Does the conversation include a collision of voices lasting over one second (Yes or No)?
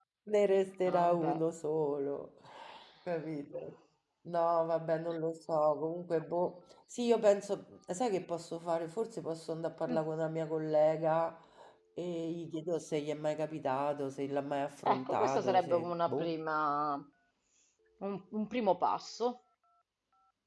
Yes